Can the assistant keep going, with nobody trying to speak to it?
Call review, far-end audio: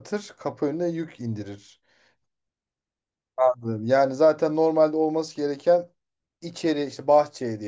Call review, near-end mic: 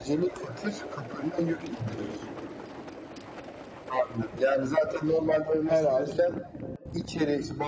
No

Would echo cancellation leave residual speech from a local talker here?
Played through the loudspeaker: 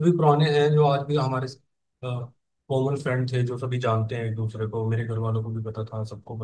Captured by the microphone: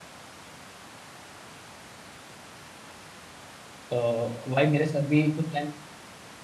Yes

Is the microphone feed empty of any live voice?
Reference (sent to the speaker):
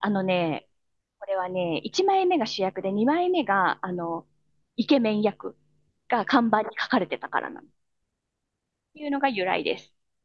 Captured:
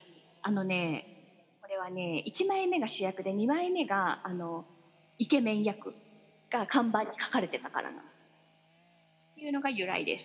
Yes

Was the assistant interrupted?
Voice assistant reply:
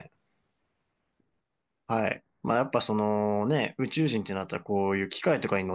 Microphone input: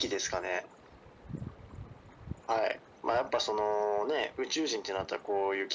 No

